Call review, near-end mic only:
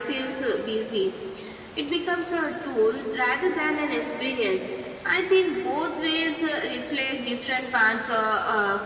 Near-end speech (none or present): none